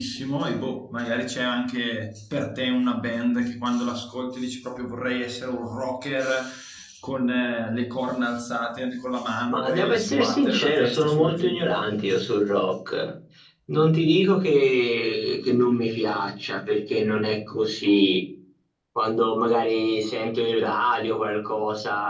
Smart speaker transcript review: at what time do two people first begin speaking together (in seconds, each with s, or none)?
9.5 s